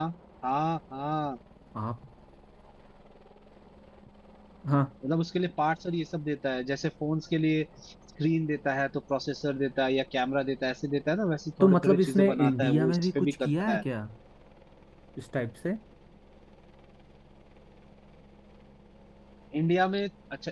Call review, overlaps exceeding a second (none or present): present